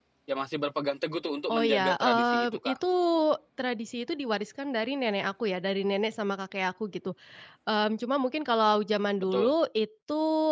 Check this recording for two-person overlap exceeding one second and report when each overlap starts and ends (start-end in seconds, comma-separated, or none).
1.5-2.8